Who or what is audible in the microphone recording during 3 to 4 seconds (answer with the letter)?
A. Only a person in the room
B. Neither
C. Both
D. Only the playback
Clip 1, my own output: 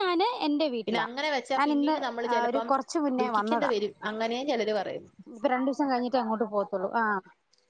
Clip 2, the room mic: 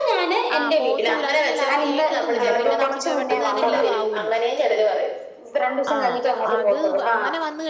C